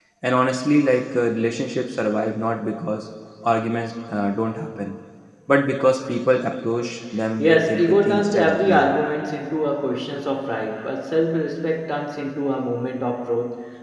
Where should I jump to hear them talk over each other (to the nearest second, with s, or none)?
7 s